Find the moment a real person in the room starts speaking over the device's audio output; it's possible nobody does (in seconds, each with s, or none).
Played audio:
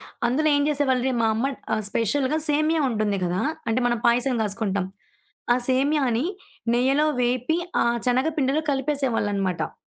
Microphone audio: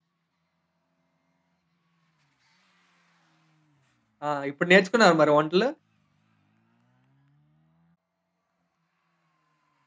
4.3 s